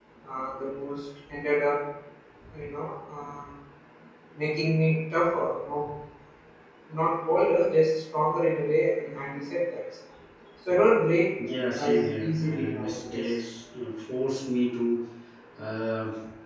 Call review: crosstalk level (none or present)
present